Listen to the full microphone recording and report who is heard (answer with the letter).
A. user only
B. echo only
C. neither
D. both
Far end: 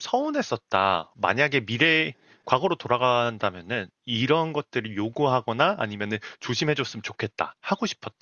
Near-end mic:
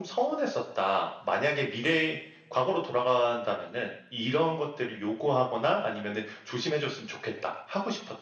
B